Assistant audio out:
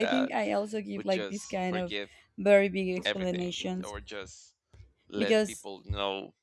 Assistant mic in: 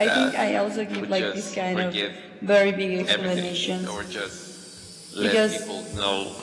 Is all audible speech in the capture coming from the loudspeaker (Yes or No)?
Yes